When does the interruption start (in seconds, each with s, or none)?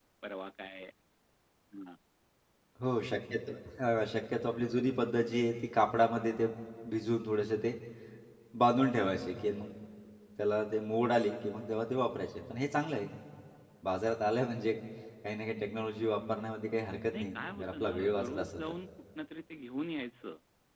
17.1 s